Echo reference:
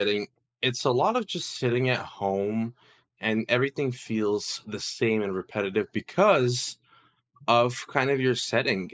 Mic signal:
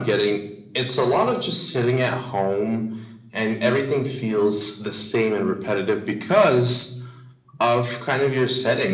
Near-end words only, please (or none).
none